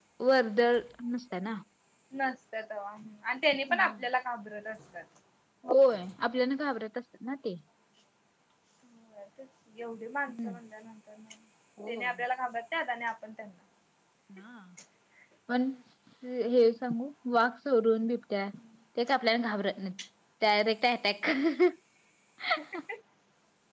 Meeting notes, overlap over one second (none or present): none